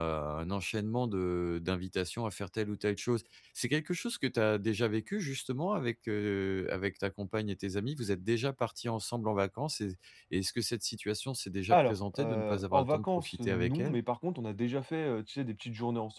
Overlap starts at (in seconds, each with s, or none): 11.7 s